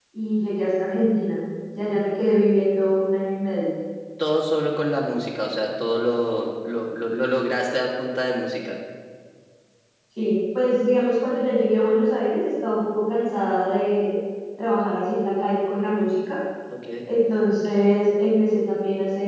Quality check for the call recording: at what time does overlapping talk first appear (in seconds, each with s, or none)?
none